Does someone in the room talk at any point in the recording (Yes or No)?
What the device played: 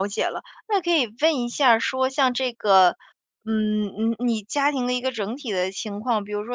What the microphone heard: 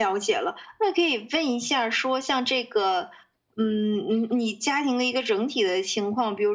No